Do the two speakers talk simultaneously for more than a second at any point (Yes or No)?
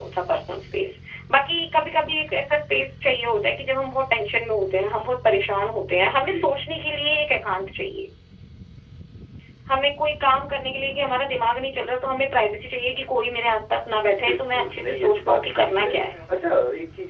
Yes